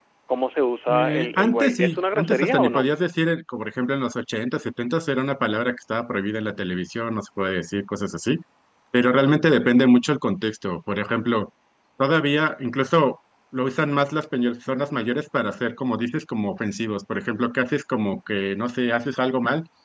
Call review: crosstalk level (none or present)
present